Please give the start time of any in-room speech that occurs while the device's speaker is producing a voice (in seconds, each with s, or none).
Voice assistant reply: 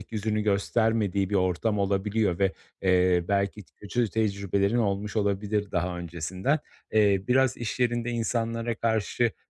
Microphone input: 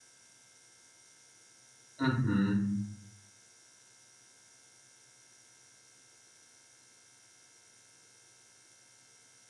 2.0 s